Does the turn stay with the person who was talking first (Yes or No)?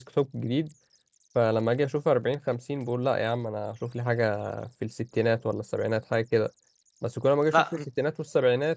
Yes